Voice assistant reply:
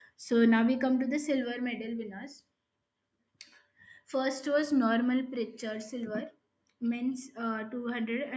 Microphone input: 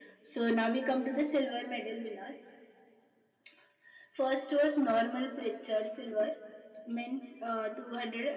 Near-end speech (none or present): none